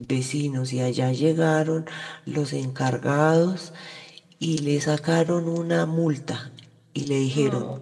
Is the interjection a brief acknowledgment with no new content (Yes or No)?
Yes